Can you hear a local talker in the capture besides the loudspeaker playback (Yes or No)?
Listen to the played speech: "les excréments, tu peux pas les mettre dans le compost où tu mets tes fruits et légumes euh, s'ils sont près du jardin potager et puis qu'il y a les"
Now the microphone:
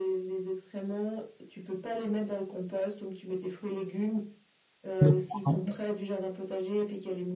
Yes